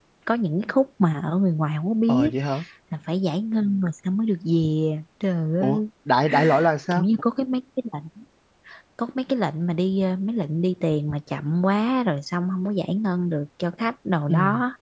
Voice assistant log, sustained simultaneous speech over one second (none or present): none